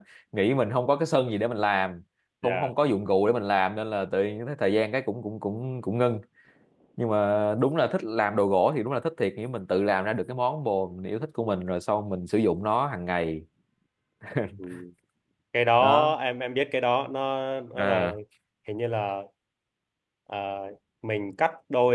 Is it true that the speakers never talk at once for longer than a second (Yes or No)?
Yes